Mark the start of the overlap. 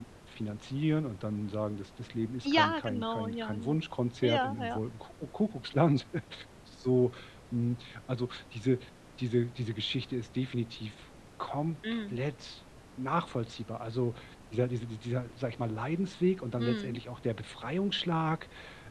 2.5 s

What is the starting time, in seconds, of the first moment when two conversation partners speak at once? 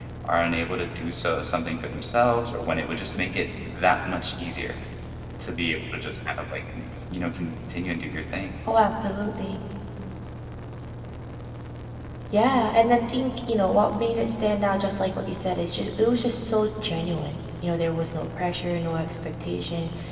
none

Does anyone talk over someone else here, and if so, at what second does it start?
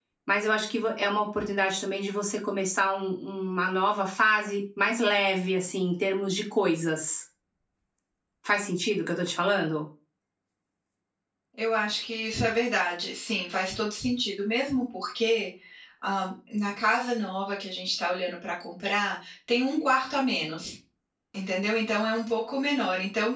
none

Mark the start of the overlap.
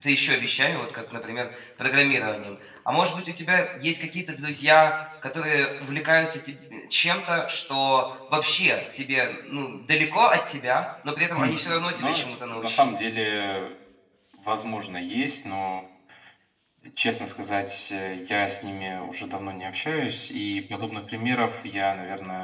11.4 s

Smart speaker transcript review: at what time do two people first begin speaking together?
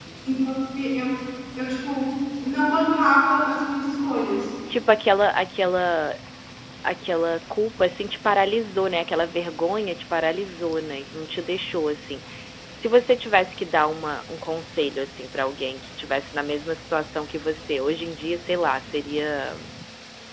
none

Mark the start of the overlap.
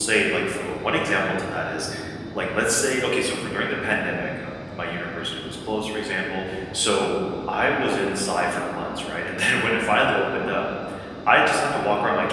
none

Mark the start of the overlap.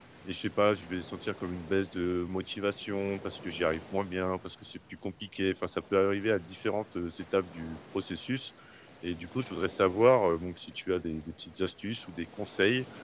none

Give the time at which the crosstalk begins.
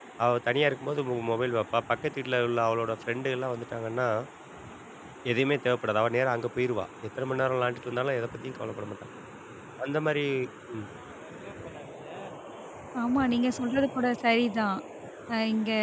none

